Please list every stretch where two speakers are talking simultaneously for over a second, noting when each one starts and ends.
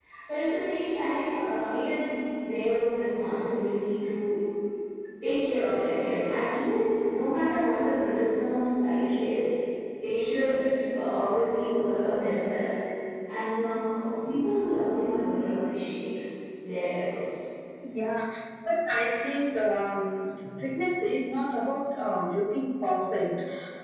none

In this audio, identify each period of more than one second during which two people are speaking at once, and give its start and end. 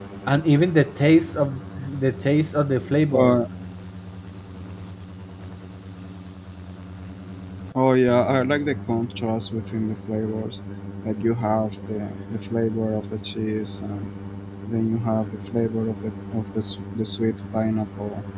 none

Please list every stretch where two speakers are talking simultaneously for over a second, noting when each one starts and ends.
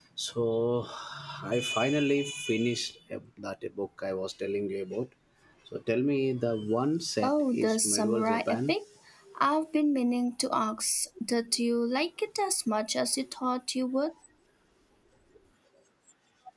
7.2-8.8

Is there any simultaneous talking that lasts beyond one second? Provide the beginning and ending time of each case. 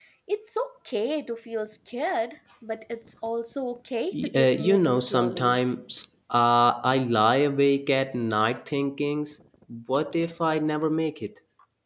4.2-5.6

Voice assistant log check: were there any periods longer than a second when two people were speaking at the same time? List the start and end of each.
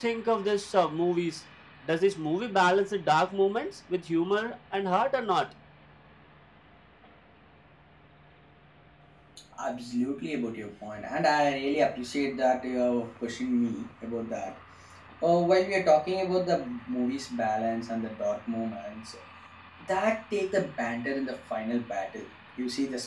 none

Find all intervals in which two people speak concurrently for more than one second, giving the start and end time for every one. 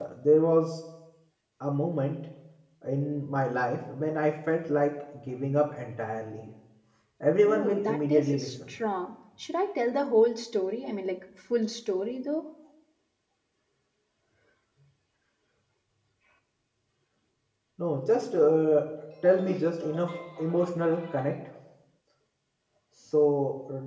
7.5-8.7

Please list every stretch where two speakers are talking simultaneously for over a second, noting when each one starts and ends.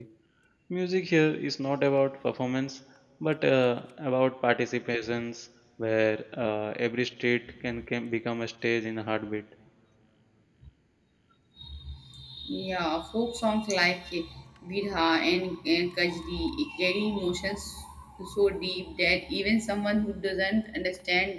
none

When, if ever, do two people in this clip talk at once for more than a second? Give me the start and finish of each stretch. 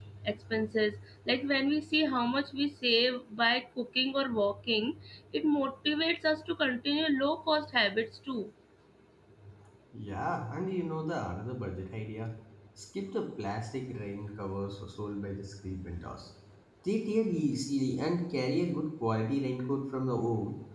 none

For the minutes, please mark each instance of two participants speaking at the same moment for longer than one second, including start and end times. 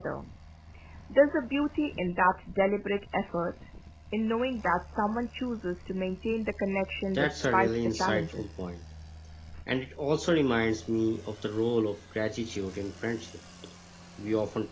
7.1-8.7

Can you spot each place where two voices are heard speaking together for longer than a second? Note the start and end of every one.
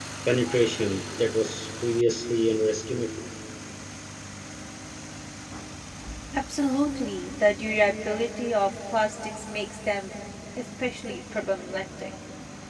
none

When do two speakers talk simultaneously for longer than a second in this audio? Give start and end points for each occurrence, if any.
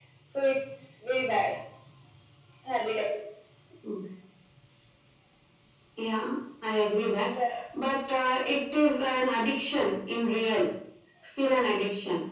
none

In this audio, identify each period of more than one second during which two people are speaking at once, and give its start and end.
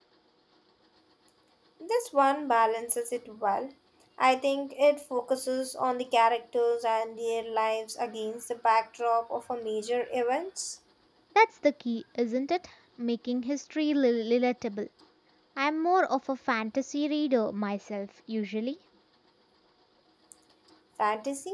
none

